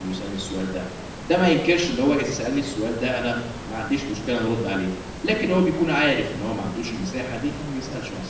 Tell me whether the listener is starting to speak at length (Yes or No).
Yes